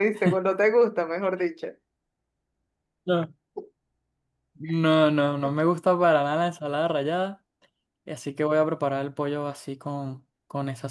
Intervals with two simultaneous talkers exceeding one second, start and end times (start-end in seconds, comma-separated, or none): none